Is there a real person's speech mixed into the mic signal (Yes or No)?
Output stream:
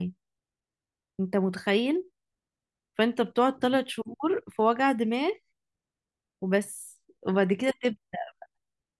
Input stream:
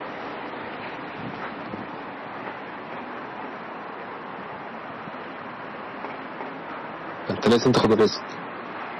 Yes